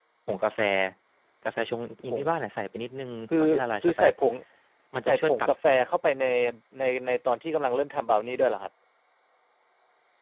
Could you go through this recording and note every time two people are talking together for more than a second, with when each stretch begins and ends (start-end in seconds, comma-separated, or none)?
none